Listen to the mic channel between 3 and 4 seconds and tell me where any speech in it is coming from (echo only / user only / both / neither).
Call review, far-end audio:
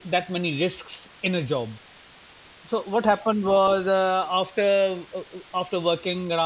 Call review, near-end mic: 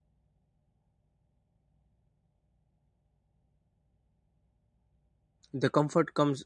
neither